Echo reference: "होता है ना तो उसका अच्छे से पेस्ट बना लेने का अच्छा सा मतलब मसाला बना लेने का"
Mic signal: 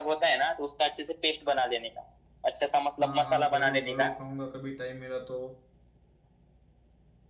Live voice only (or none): हाँ हाँ जरूर जरूर खाऊंगा कभी टाइम मिला तो